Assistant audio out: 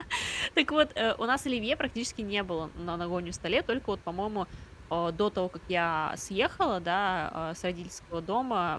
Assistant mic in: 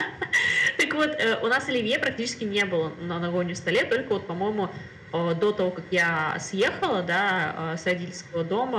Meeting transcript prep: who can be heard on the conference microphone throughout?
echo only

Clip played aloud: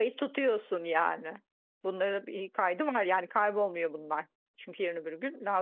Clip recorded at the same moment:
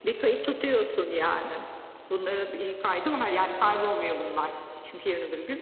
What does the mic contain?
echo only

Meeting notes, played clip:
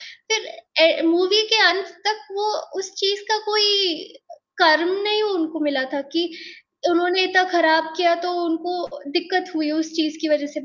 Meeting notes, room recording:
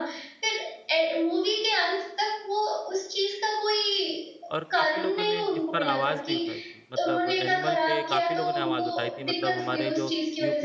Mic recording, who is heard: both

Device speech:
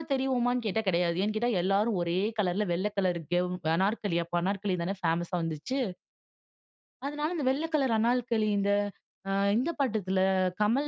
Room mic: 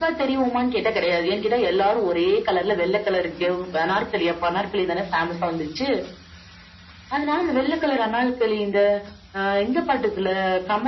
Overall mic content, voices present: echo only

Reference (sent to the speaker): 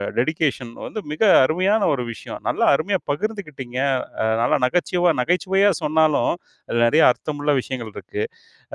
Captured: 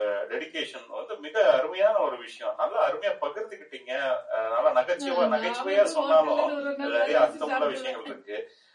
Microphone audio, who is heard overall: both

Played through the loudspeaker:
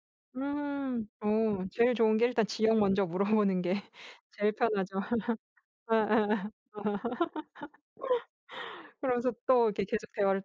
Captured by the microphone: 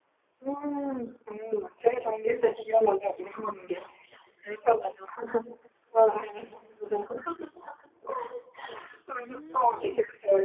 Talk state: both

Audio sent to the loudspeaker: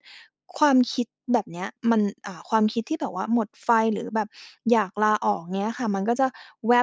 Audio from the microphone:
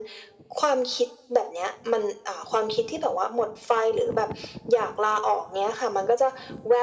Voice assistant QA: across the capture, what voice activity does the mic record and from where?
echo only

